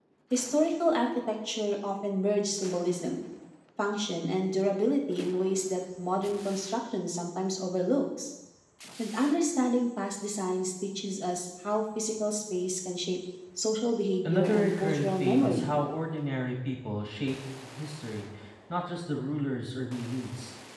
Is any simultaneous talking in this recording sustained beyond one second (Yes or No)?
Yes